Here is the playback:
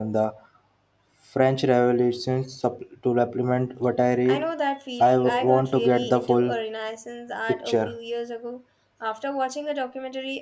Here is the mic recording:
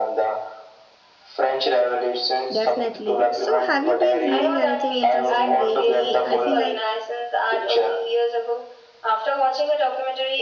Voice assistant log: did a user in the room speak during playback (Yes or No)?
Yes